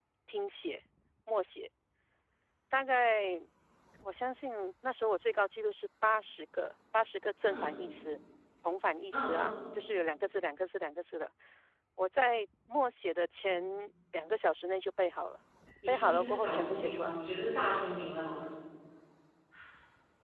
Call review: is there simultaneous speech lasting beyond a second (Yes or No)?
Yes